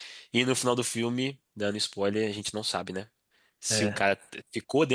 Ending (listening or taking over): listening